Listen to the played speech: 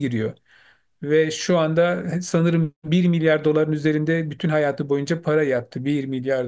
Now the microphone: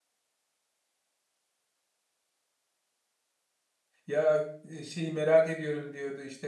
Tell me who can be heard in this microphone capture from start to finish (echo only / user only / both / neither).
user only